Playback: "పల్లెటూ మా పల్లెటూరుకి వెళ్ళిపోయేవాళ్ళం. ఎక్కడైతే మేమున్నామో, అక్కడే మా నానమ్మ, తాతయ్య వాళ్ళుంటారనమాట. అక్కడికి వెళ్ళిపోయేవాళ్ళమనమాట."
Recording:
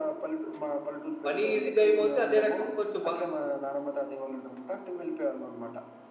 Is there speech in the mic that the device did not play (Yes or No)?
Yes